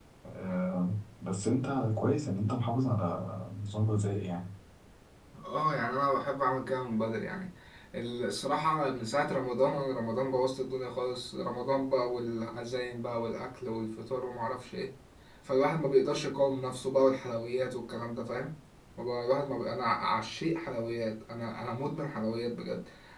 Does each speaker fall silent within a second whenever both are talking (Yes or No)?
Yes